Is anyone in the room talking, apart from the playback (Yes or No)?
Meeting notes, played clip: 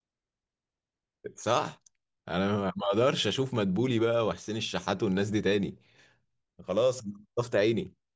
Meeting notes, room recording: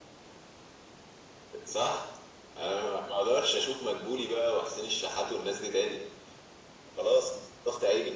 No